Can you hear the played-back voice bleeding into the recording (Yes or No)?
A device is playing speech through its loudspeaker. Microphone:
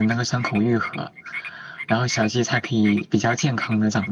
Yes